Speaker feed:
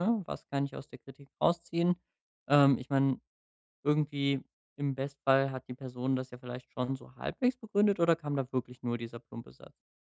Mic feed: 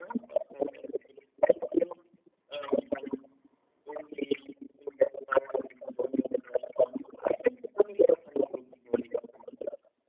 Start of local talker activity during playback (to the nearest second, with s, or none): none